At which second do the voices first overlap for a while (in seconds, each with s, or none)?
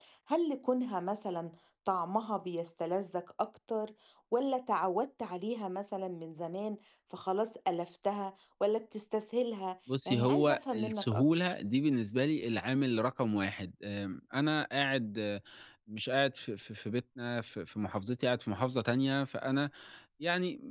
9.9 s